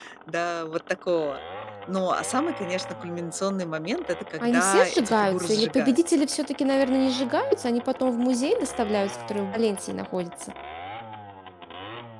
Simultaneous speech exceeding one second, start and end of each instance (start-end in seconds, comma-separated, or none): 4.4-6.2